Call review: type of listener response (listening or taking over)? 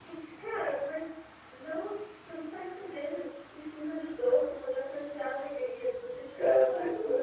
listening